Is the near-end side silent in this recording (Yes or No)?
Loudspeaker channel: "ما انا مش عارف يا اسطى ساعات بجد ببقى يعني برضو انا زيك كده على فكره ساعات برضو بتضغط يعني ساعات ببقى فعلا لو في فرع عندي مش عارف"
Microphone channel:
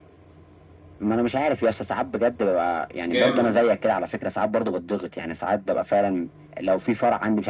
No